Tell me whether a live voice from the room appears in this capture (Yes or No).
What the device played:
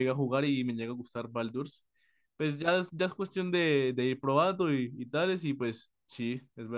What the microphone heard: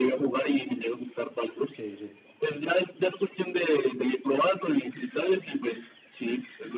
Yes